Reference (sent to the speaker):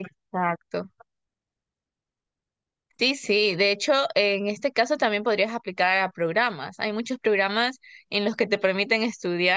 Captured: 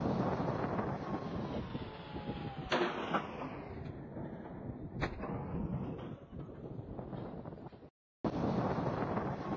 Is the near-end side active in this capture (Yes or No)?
No